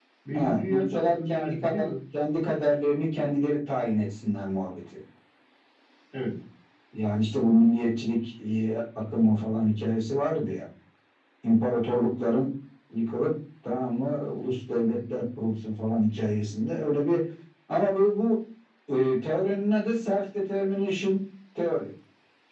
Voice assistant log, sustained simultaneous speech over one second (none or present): present